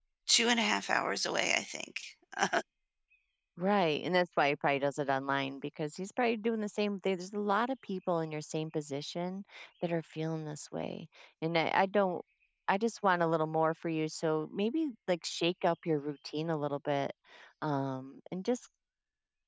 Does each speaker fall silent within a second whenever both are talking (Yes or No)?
Yes